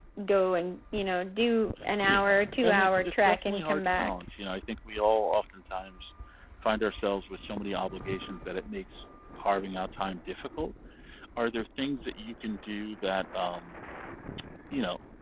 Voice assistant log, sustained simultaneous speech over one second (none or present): present